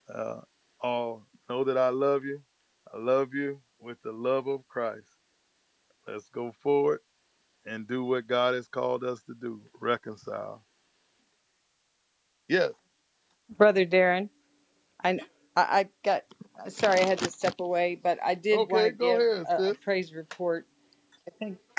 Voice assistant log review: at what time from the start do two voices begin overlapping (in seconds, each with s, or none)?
18.5 s